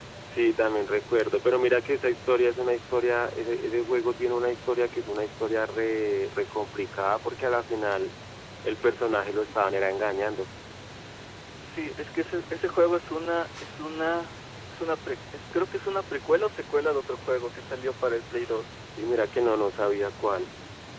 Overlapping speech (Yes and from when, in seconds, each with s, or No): No